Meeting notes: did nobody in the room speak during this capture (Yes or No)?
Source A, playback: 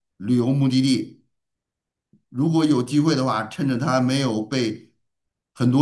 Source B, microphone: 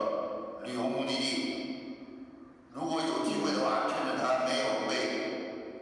No